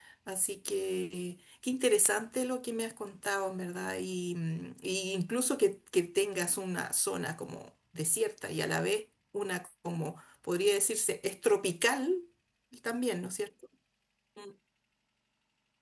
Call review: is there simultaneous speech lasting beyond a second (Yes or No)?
No